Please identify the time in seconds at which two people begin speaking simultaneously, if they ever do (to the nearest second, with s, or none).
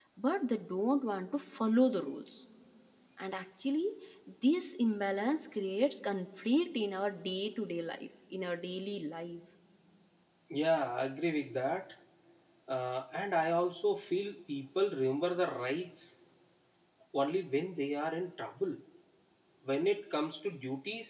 none